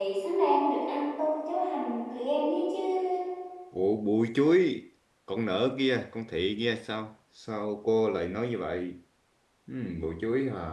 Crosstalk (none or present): none